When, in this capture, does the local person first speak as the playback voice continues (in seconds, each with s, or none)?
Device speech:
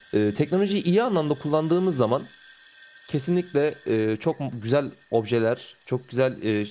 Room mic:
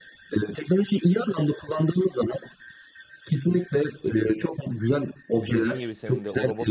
5.5 s